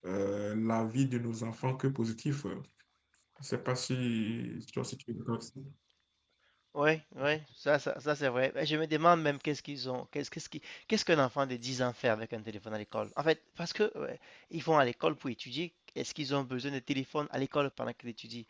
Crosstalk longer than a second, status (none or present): none